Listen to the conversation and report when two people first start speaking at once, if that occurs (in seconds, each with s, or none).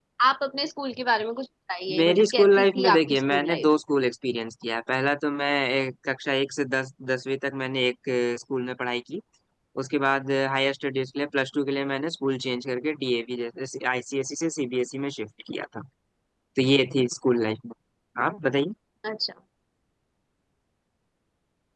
1.9 s